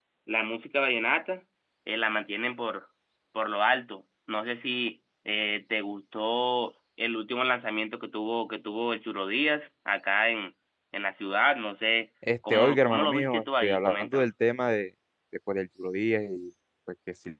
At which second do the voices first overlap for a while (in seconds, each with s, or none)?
12.5 s